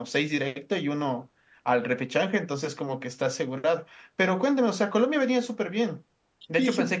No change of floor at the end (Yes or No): Yes